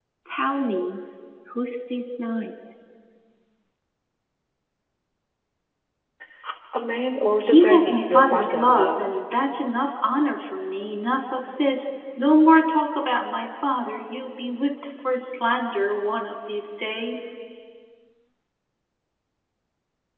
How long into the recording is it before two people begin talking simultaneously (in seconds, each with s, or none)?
7.4 s